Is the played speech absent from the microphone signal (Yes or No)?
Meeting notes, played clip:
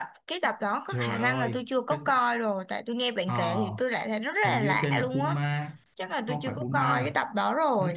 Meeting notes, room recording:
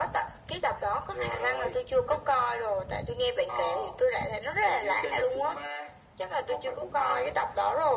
No